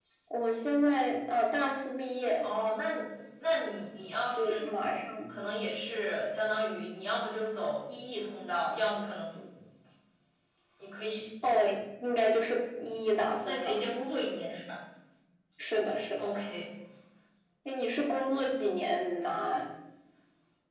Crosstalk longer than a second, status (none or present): none